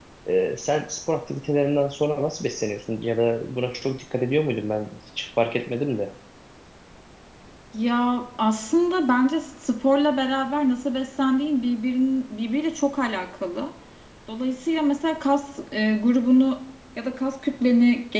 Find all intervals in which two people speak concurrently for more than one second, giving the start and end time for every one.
none

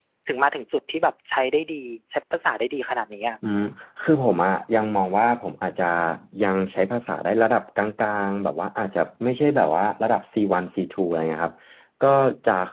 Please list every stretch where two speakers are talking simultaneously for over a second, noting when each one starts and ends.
none

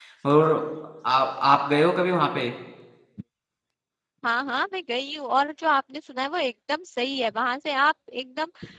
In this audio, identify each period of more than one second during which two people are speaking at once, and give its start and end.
none

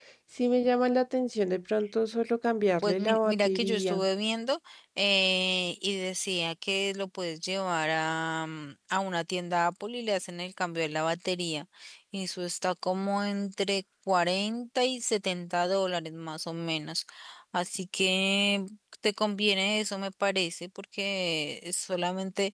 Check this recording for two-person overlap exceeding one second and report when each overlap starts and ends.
2.8-4.0

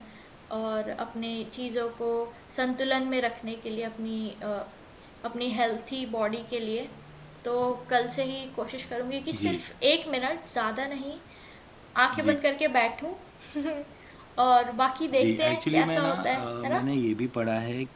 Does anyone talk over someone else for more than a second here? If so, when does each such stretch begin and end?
15.2-16.8

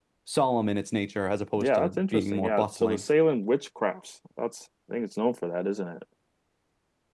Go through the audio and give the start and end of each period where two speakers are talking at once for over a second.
1.6-3.0

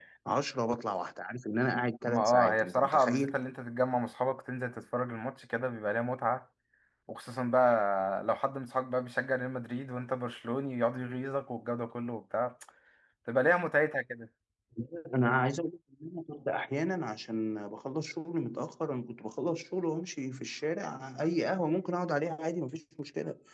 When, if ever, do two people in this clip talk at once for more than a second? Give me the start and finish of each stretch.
2.1-3.4

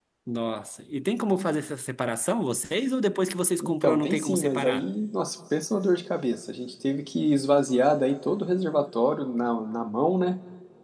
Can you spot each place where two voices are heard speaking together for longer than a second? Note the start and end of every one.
3.6-4.8

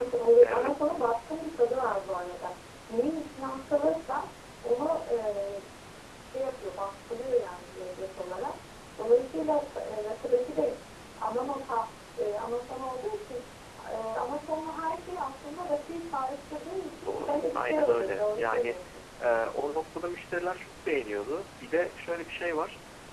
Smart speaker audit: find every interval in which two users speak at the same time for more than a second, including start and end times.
17.1-18.8

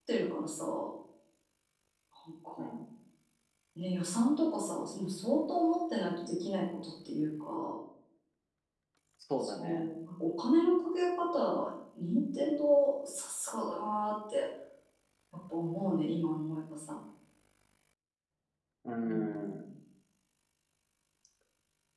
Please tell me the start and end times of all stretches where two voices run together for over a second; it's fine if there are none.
none

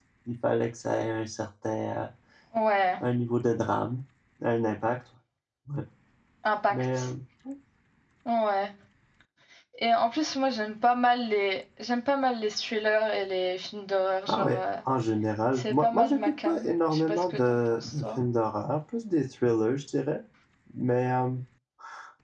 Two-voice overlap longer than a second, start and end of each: 15.6-18.0

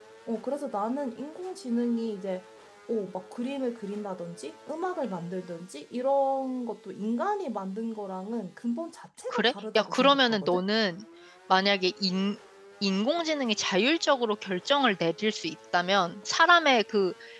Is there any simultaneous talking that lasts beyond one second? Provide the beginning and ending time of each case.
9.3-10.6

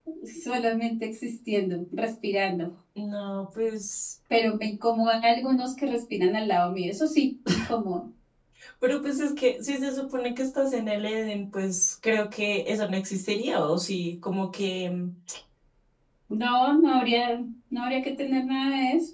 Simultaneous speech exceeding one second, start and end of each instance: none

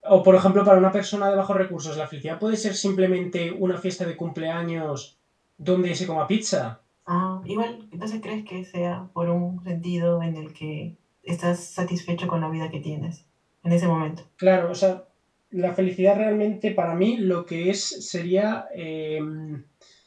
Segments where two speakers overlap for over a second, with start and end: none

